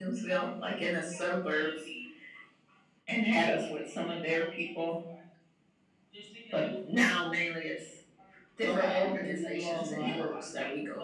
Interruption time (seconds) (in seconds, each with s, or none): 8.6 s